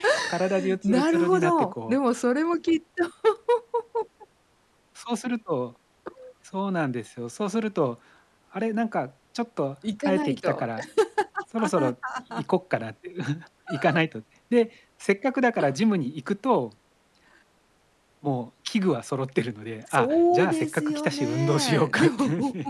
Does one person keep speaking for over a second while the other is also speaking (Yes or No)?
Yes